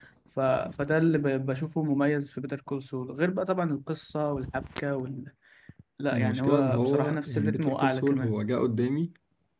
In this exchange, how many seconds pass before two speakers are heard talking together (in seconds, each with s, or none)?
6.1 s